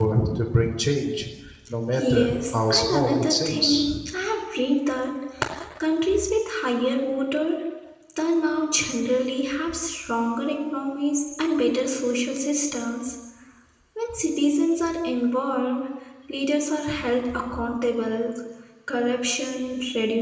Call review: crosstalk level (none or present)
present